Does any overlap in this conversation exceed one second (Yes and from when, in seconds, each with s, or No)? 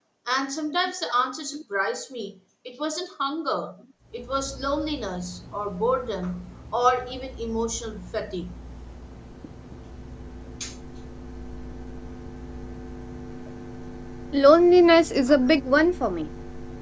No